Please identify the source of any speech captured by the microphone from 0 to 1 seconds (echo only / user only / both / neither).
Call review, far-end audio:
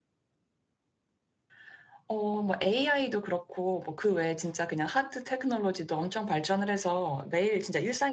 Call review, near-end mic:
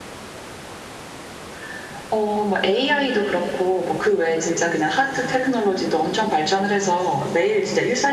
neither